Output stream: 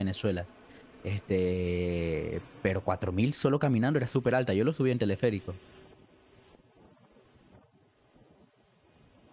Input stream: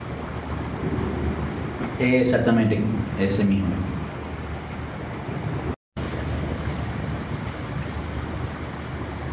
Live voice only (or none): Exactamente, ese mismo.